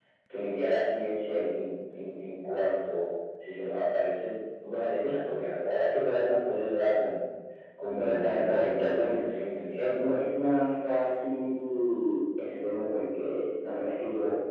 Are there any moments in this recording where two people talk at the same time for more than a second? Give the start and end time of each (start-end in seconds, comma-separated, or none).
7.9-9.2